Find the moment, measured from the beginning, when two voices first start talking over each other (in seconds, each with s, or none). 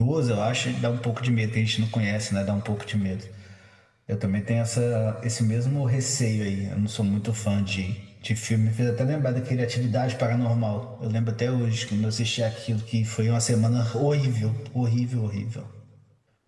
none